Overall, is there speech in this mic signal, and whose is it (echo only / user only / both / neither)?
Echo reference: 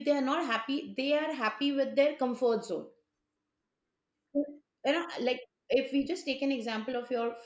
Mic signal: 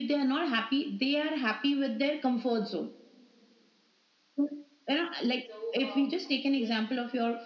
both